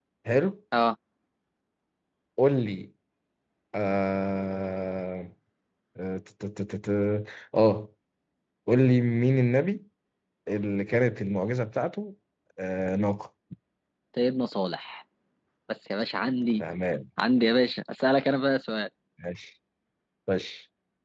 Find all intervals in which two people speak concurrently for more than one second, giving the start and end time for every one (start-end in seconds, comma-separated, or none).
none